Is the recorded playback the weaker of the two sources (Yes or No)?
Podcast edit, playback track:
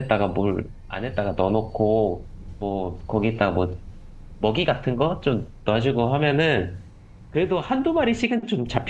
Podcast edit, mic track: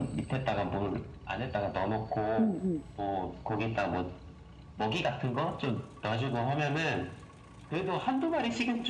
Yes